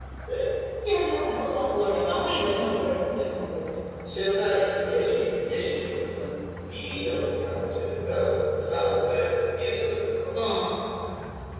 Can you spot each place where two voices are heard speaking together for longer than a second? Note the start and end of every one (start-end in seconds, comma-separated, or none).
none